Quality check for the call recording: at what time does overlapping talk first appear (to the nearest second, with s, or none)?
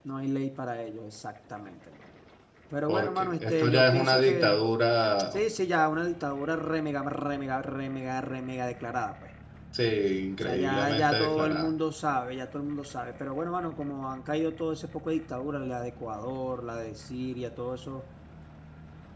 3 s